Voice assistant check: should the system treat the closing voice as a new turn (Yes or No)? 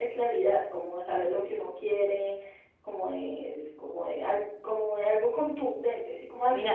No